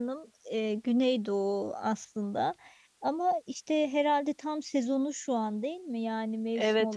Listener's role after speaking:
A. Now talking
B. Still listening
A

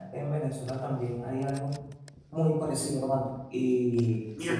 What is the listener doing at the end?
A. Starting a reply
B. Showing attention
A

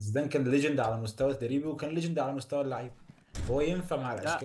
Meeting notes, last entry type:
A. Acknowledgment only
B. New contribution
B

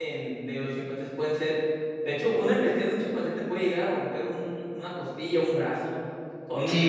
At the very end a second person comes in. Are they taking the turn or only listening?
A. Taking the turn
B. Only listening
A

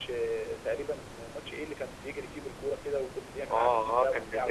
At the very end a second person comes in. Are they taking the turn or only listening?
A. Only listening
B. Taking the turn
B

